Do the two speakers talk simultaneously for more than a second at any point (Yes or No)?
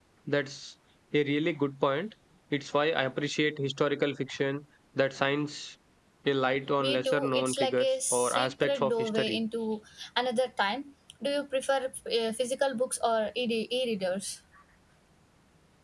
Yes